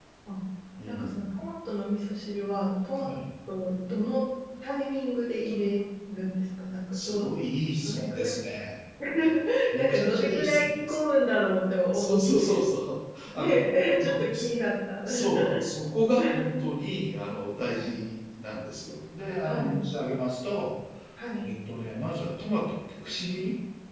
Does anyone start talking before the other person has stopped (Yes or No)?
Yes